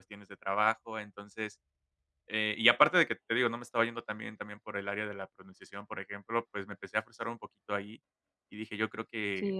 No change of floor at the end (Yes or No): No